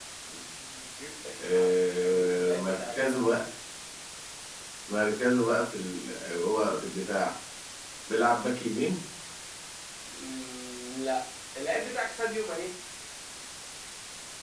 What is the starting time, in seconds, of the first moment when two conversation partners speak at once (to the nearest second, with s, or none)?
1 s